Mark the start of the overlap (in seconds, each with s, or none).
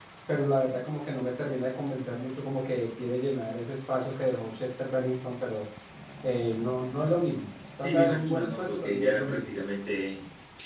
7.8 s